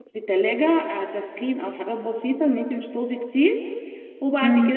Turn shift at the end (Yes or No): No